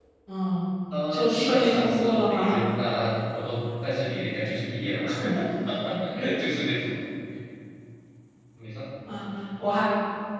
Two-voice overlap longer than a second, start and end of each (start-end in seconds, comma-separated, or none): 1.1-2.5